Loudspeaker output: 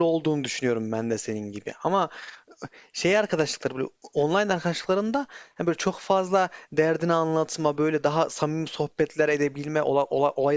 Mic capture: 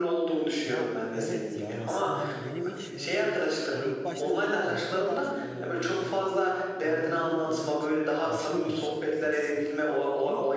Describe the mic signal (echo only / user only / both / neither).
both